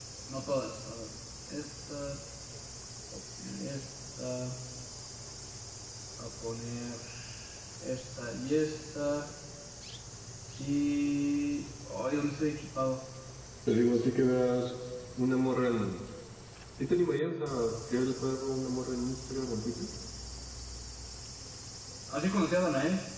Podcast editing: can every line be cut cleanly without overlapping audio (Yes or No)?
Yes